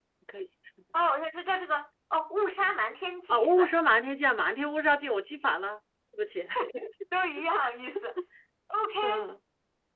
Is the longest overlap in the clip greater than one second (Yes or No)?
No